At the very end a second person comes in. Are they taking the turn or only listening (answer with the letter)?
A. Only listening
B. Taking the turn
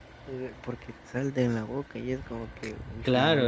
B